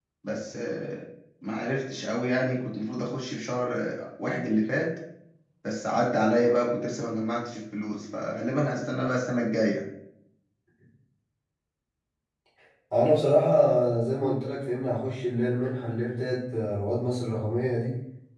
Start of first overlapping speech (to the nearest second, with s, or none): none